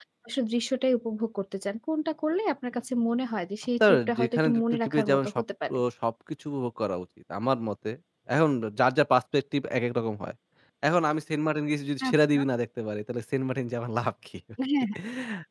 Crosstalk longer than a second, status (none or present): present